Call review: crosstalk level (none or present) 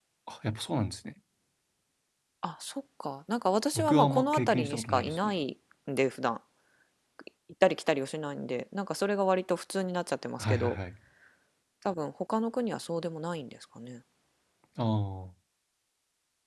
present